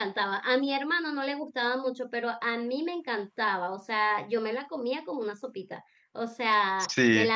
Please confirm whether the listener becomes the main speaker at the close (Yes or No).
No